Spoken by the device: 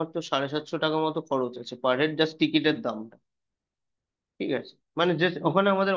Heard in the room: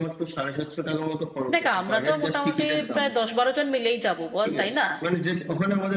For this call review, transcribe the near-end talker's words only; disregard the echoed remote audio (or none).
দেখ আমরা তো মোটামুটি প্রায় দশ বারো জন মিলেই যাব বল তাই না